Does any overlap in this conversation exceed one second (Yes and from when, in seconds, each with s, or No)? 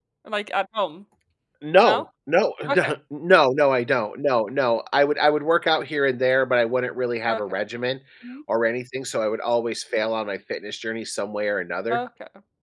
No